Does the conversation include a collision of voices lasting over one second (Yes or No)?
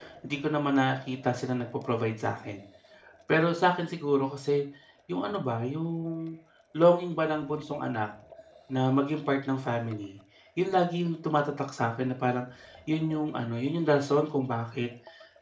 No